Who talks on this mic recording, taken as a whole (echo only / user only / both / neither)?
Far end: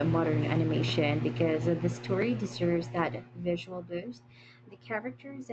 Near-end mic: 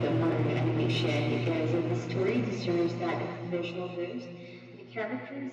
echo only